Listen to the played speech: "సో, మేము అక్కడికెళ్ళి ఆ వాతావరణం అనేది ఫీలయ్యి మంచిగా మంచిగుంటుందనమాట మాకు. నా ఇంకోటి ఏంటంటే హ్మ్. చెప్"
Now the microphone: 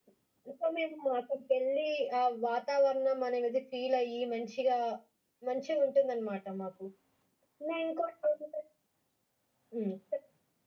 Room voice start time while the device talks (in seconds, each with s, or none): none